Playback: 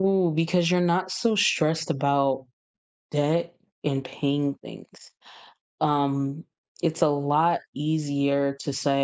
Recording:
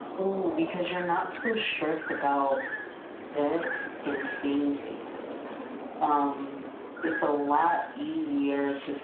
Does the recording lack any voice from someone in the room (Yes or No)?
Yes